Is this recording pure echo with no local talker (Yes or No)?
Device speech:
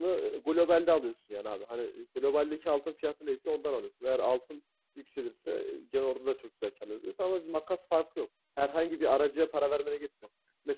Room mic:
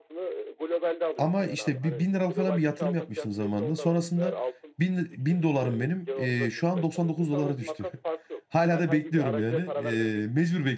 No